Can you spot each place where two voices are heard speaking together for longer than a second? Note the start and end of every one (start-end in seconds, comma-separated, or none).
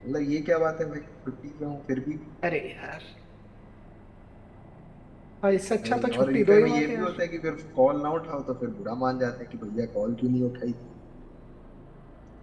5.8-7.1